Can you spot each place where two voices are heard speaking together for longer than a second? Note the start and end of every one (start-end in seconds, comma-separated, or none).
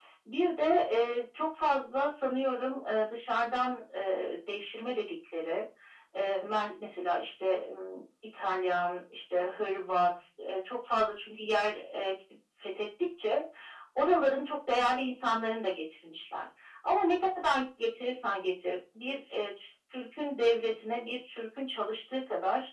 none